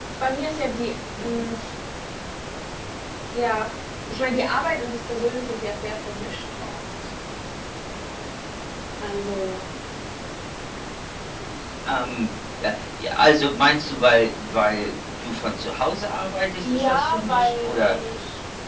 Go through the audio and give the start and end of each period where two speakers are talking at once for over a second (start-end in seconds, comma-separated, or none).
16.6-18.0